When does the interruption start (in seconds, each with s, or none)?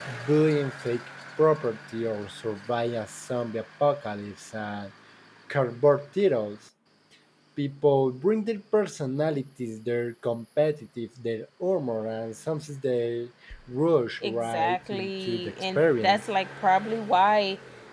14.2 s